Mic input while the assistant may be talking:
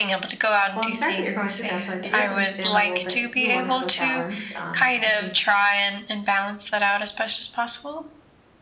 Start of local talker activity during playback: 0.8 s

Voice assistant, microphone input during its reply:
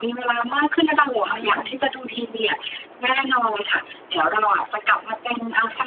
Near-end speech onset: 1.2 s

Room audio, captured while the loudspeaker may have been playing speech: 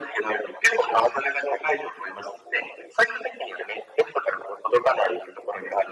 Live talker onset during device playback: none

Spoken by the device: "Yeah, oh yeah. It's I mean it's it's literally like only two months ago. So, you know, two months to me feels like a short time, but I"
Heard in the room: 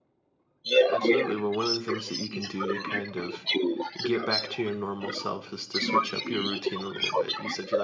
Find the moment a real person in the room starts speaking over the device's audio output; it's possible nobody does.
0.9 s

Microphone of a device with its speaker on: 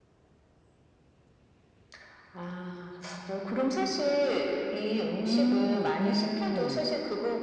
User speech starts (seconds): 5.2 s

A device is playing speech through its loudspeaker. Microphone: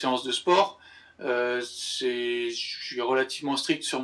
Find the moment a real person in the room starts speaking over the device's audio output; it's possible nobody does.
none

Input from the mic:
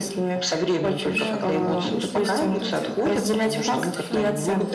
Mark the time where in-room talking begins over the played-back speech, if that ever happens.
1.1 s

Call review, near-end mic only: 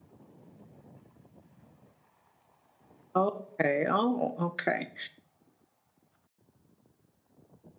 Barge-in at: 3.1 s

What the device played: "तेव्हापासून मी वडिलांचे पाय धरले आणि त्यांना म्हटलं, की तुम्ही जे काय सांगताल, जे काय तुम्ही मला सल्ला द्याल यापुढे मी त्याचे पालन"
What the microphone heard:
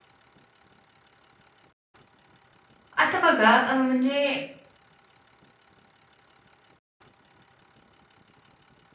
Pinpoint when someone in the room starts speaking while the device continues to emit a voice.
3.0 s

